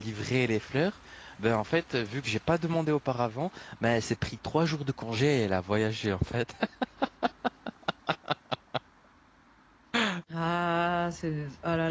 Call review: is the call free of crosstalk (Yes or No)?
Yes